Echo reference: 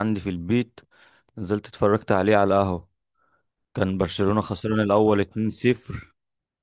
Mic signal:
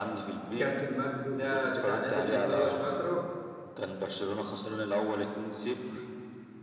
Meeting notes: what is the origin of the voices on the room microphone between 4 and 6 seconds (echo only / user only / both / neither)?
echo only